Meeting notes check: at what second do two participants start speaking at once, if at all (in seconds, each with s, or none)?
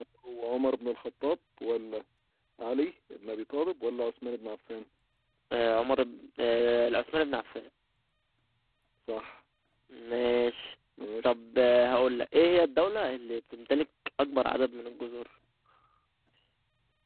none